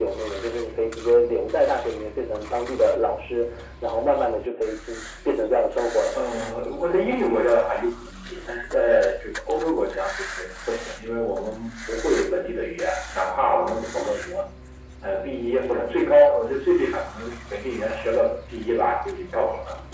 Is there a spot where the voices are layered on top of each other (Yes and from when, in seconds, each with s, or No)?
No